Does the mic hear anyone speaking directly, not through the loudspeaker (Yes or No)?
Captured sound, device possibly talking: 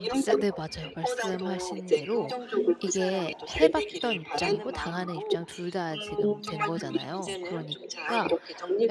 Yes